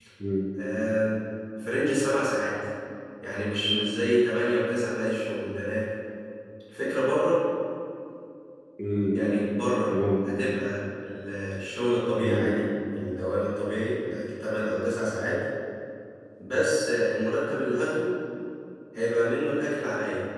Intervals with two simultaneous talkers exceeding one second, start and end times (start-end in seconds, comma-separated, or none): none